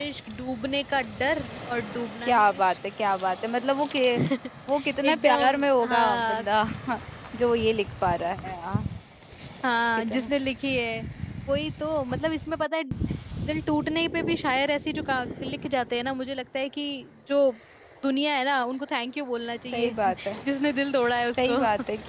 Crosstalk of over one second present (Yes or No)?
Yes